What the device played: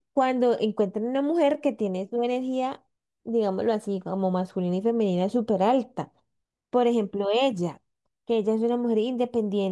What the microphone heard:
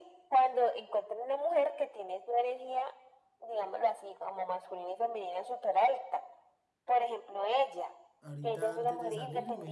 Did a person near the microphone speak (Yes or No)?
Yes